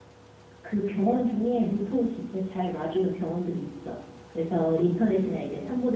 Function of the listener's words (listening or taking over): listening